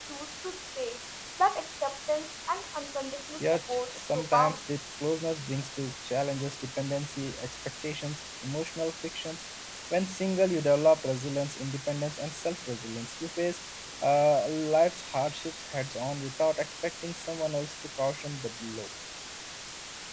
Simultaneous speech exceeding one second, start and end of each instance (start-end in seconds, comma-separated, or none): 3.4-4.6